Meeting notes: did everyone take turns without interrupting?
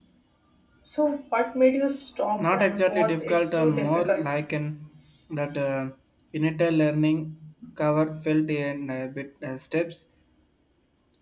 No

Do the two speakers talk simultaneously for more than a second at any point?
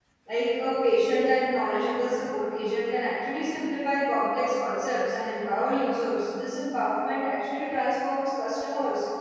No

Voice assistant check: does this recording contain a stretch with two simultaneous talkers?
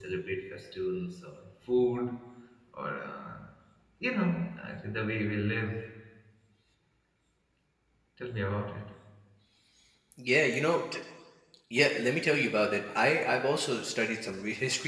No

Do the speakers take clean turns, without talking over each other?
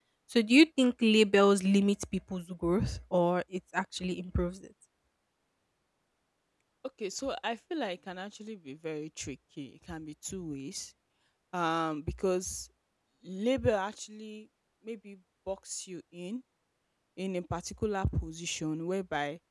Yes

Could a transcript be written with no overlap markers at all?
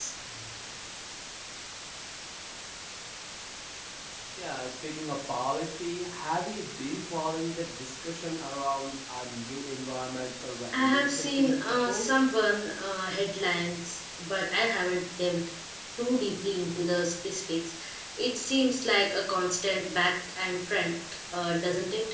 No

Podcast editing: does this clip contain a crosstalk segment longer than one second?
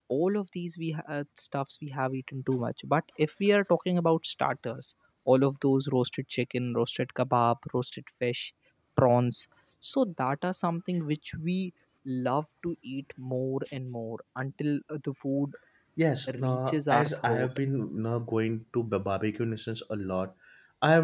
Yes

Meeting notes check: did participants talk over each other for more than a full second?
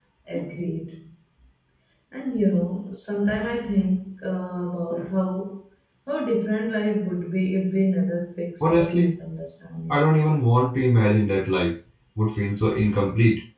No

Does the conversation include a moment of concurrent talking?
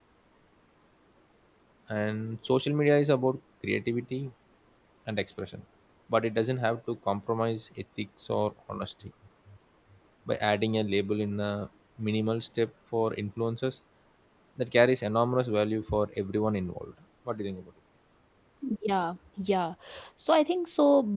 No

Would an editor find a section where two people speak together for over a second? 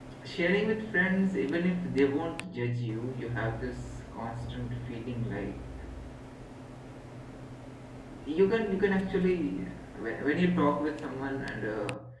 No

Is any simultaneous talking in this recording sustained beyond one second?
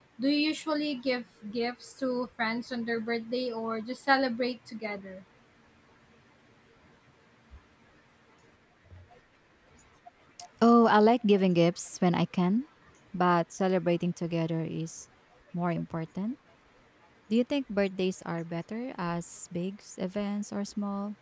No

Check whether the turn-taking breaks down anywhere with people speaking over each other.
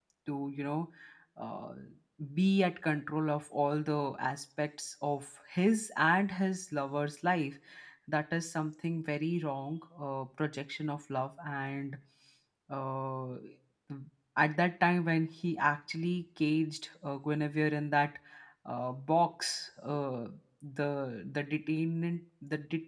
No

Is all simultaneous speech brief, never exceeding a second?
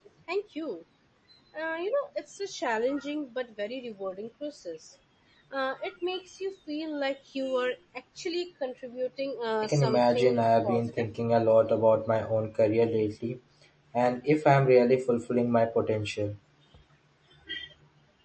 No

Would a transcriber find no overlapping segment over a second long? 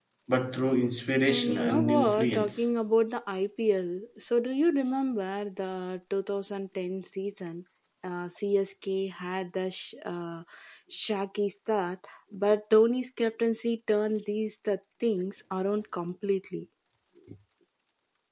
No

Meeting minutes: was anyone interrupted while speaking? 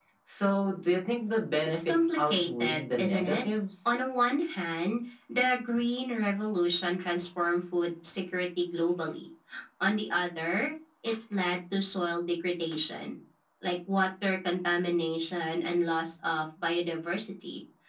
Yes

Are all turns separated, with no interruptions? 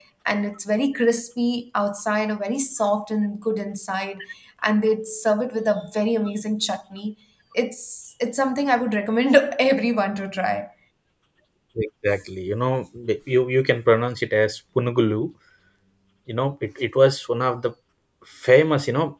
Yes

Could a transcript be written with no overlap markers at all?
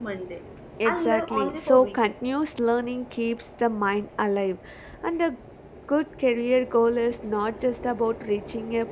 No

